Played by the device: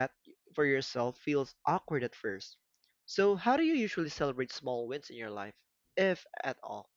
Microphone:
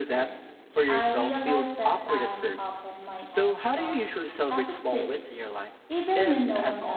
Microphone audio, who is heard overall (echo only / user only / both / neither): both